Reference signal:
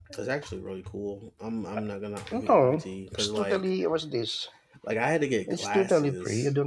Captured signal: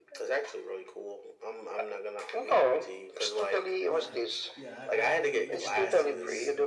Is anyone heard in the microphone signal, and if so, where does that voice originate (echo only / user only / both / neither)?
both